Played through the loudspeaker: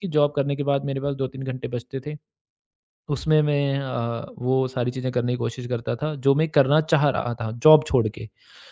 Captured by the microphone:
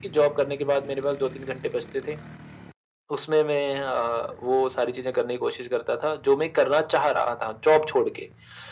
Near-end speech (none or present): none